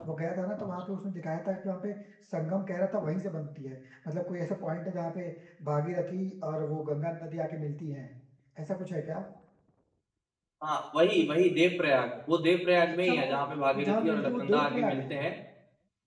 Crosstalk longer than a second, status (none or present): present